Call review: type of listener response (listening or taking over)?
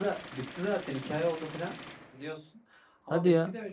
listening